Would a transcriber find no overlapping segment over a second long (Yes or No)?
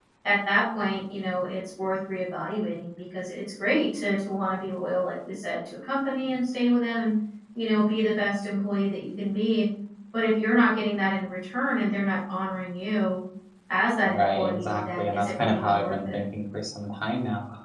No